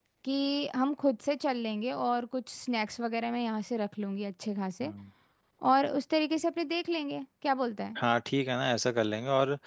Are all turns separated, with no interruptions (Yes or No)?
Yes